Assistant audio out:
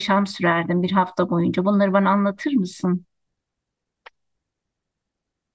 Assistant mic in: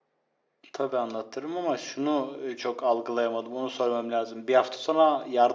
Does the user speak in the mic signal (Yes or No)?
Yes